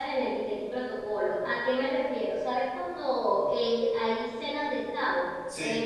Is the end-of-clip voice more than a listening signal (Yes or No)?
No